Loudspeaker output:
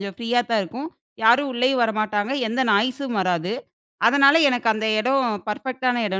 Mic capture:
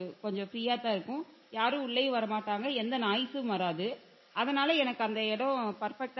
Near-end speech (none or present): none